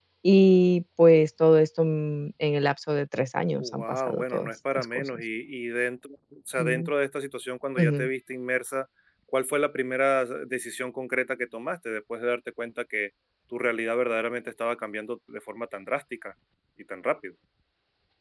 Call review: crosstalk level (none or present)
present